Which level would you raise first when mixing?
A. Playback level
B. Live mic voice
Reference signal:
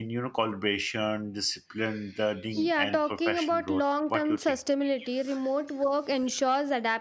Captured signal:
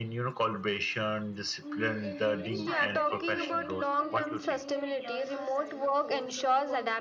B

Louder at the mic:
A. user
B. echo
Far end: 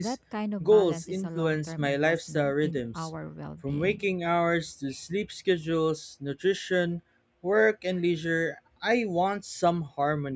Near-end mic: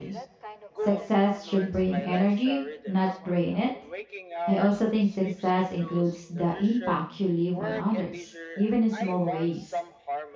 A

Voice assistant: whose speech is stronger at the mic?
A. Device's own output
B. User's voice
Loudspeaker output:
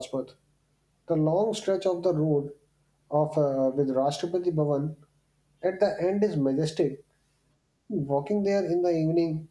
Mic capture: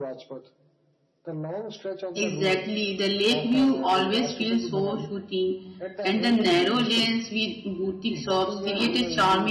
B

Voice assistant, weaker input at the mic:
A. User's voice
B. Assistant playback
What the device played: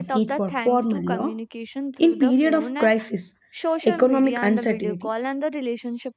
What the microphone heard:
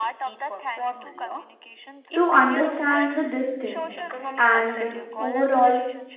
B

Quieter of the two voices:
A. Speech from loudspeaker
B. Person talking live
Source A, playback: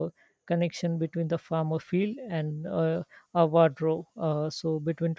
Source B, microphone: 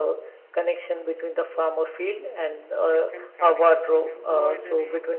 B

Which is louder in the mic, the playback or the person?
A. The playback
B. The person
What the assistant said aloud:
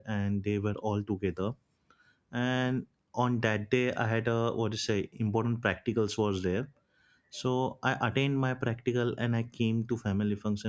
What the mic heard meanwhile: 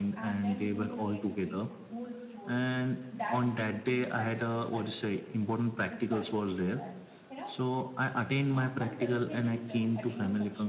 A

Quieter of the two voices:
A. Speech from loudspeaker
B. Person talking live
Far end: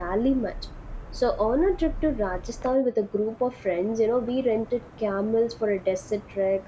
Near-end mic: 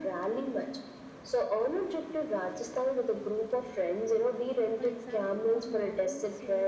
B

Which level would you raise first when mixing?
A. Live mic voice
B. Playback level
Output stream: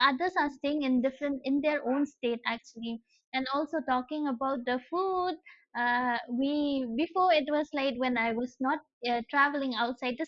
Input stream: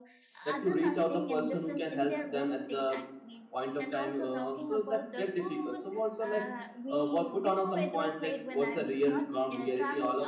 B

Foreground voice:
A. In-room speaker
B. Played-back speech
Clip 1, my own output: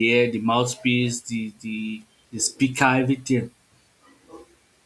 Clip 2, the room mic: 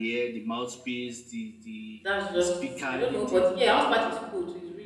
A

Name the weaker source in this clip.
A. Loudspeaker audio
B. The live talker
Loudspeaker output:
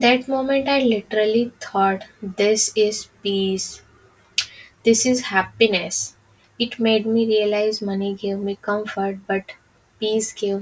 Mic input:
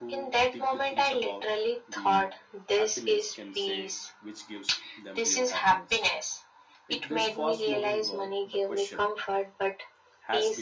B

